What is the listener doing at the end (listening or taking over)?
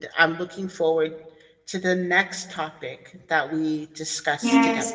taking over